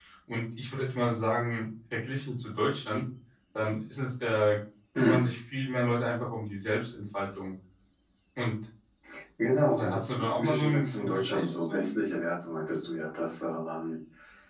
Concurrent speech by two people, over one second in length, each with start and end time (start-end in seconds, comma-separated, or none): 9.7-11.8